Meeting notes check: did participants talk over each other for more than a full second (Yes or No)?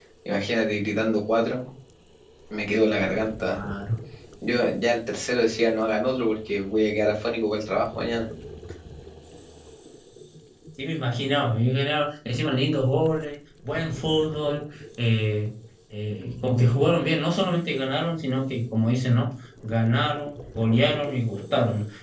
No